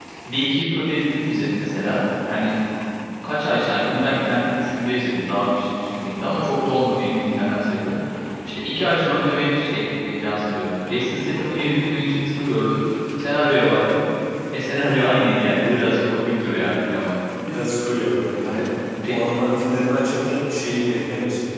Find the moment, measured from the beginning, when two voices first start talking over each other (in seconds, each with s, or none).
none